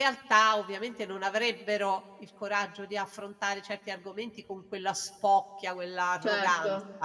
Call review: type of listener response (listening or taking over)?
taking over